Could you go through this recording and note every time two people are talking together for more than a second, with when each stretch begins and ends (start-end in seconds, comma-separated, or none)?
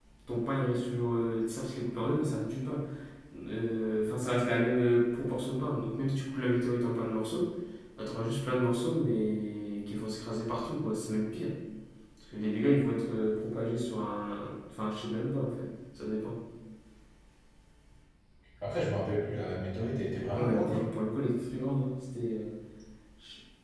none